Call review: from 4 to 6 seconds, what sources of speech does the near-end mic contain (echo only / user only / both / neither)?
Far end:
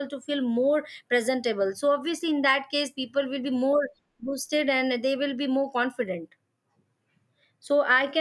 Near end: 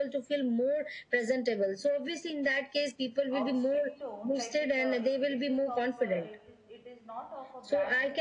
both